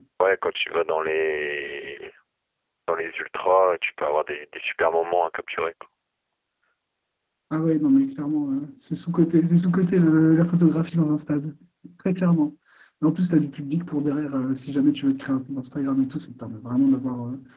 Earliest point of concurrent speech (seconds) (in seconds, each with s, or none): none